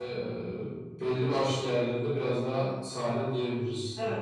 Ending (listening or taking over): taking over